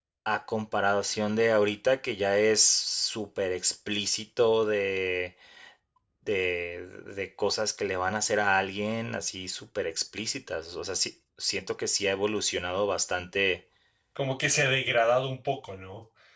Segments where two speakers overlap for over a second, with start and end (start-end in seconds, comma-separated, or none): none